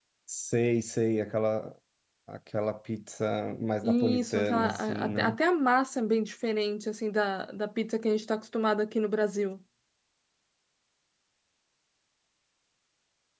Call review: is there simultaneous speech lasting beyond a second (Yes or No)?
Yes